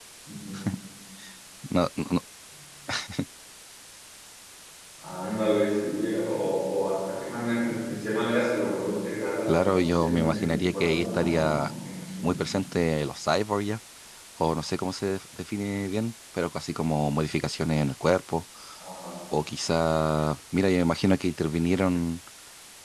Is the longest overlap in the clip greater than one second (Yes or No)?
Yes